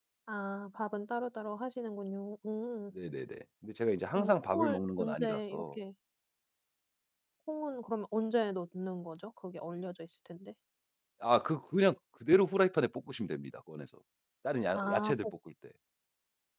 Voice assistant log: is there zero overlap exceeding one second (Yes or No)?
No